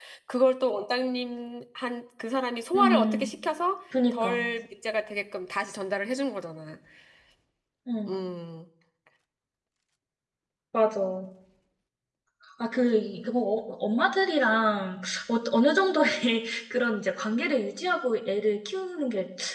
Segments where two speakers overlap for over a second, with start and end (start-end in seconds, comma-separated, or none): none